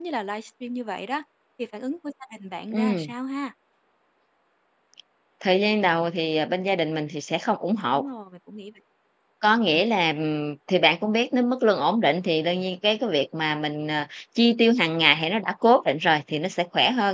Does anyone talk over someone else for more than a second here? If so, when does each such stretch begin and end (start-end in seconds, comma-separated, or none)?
none